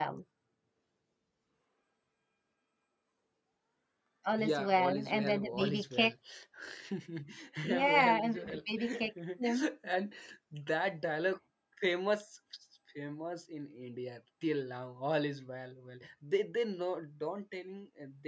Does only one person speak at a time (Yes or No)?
No